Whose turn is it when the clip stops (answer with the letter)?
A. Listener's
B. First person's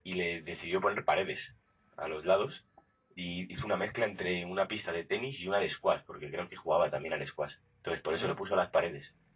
B